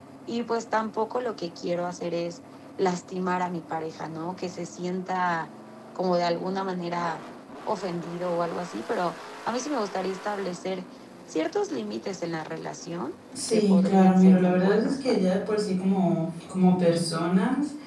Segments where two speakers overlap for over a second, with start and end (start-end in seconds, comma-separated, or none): 13.5-15.3